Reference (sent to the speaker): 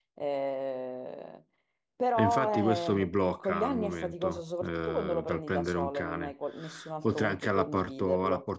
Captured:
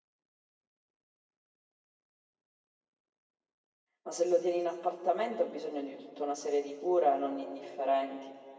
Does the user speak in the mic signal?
Yes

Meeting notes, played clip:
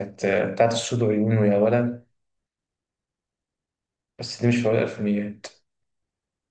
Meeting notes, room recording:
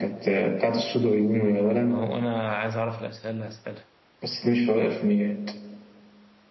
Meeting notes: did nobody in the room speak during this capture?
No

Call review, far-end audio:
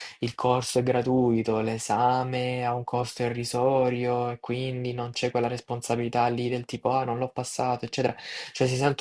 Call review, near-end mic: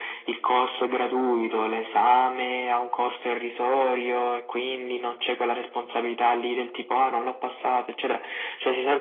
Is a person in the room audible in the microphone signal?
No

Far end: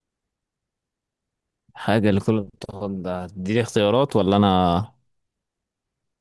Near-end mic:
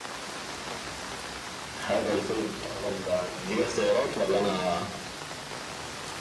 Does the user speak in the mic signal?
No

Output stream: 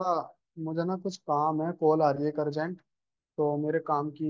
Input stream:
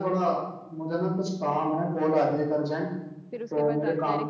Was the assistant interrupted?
Yes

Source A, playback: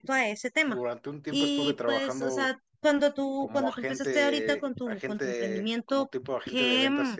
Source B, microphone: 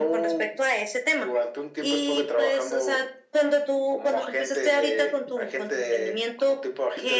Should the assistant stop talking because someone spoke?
No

